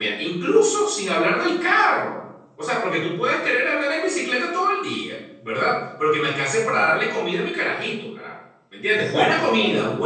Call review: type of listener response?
listening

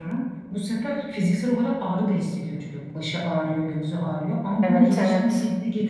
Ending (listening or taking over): listening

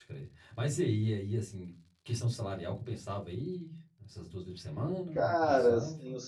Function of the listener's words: taking over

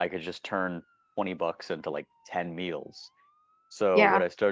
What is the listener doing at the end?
listening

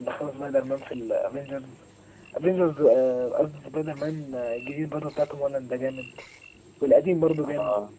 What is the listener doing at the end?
listening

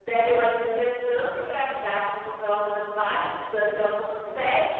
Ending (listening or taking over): listening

